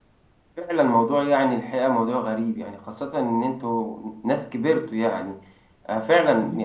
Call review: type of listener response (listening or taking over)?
listening